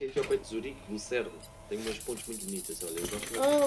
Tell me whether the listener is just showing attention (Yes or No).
No